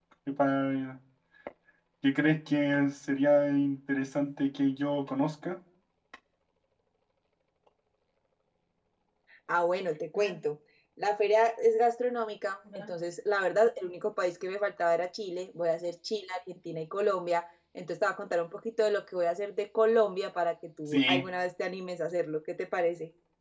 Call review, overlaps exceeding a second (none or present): none